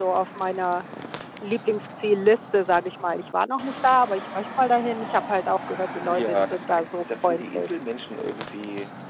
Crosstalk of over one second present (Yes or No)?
Yes